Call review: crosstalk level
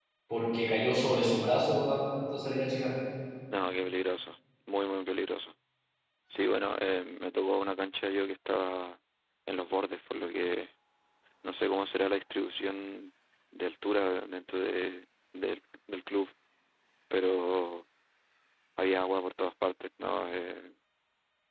none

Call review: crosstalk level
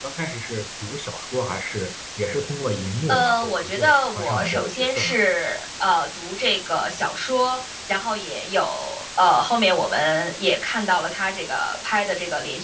present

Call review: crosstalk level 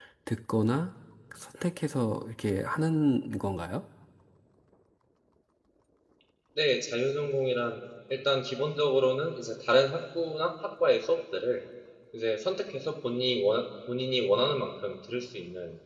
none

